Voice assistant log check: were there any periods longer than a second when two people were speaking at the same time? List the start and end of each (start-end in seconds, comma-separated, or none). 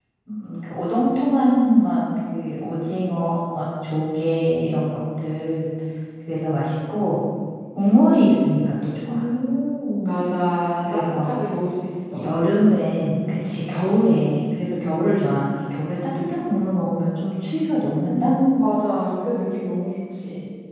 none